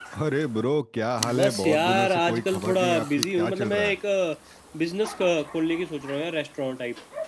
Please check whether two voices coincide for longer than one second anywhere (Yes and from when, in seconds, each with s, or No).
Yes, from 1.2 s